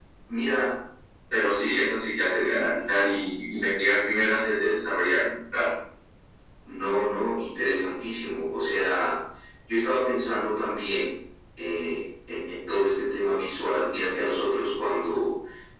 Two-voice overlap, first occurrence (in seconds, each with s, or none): none